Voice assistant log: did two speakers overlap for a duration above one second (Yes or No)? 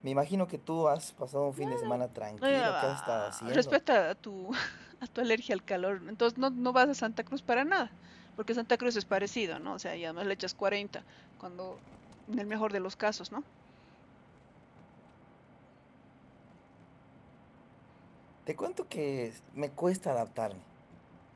Yes